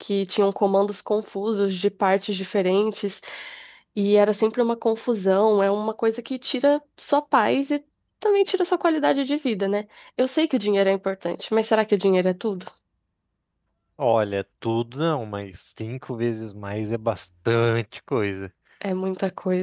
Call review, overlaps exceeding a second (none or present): none